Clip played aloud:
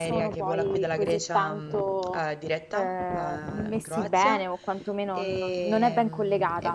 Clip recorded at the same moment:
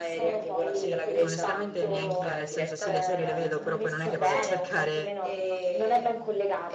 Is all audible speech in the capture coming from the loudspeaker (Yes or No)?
No